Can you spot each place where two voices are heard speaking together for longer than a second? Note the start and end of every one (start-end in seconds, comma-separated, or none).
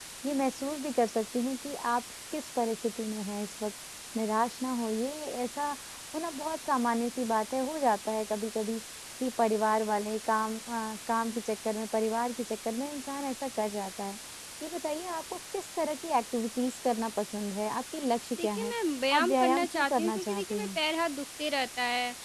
19.1-20.8